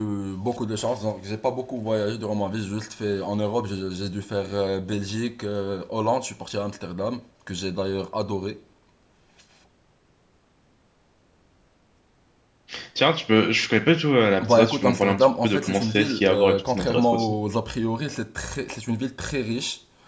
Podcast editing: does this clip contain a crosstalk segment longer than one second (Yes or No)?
Yes